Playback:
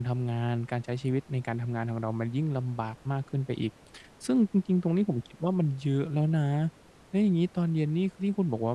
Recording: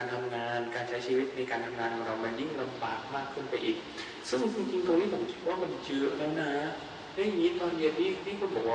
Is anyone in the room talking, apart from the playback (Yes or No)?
No